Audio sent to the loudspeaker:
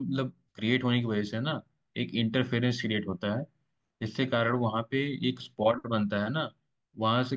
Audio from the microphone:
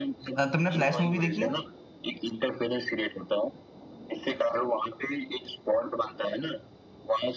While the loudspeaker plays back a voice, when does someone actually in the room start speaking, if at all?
0.4 s

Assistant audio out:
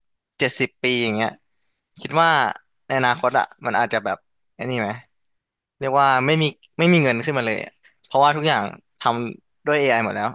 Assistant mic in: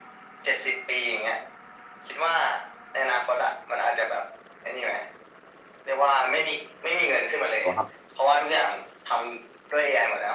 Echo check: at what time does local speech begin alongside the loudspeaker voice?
7.6 s

